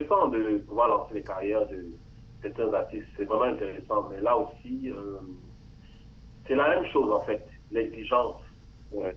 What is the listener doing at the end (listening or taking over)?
taking over